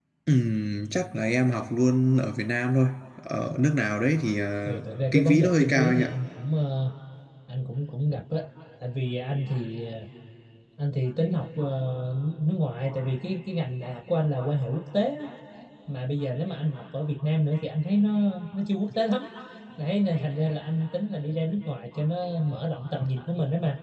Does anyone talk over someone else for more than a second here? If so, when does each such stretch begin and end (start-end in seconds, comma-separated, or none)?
4.7-6.1